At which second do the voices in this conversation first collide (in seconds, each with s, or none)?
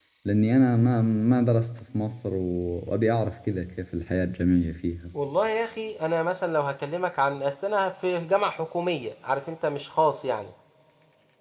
none